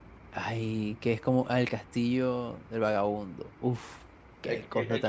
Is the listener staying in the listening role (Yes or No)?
No